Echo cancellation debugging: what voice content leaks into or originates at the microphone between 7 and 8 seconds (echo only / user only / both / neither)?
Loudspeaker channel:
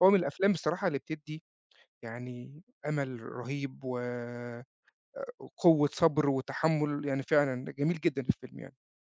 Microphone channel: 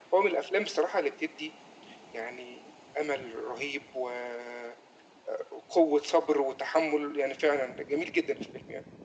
echo only